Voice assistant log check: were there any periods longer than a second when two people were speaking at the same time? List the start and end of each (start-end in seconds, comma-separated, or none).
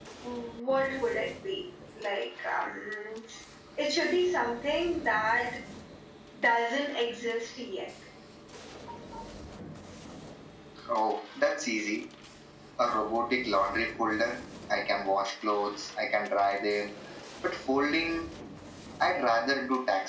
none